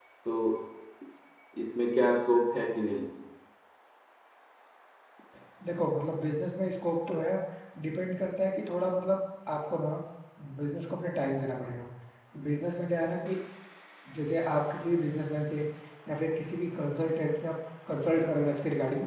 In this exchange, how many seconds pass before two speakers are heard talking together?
none

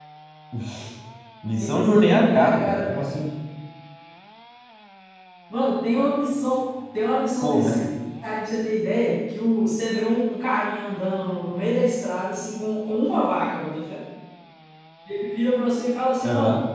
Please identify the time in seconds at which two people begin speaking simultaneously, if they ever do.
2 s

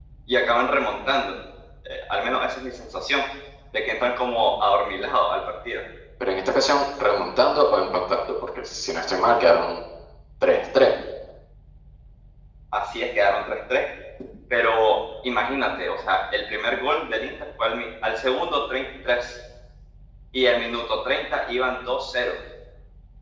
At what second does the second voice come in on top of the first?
none

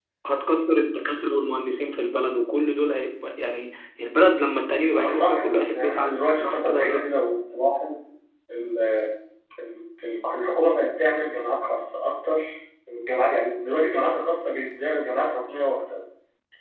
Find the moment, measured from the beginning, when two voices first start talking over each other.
5 s

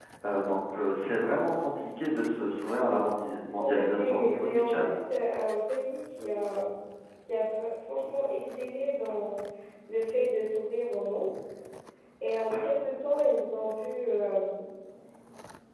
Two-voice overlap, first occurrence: 4 s

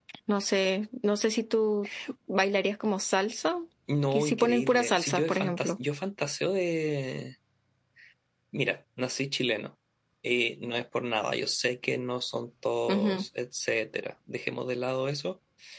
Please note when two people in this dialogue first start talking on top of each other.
4 s

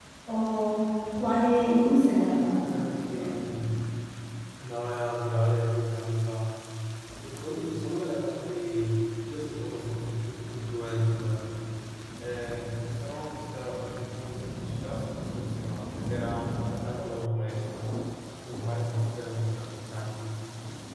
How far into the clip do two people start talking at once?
2 s

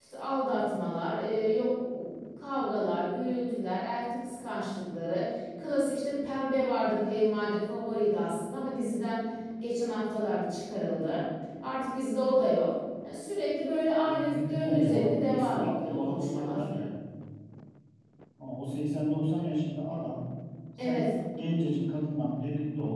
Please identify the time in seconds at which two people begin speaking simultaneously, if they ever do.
14 s

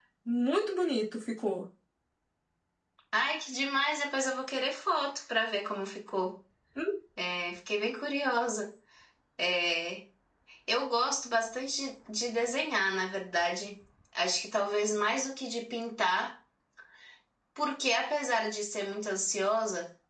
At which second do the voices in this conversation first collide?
none

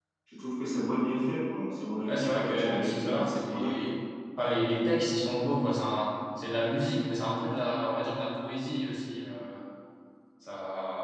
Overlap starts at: 2 s

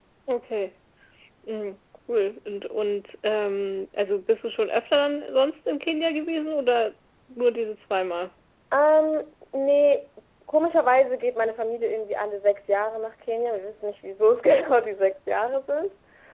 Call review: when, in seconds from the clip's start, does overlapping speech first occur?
none

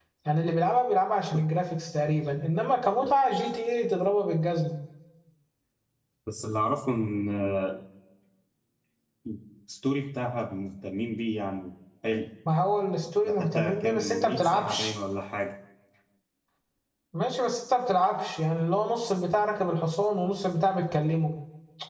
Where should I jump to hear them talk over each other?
13 s

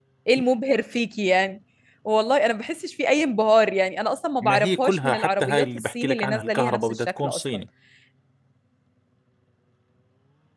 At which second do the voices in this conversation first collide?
4 s

